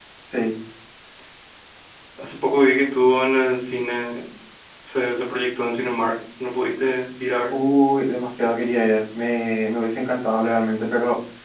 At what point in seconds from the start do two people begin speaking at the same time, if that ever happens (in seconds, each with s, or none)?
none